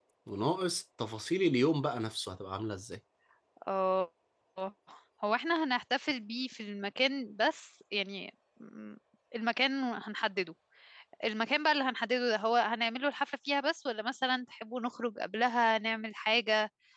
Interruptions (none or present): none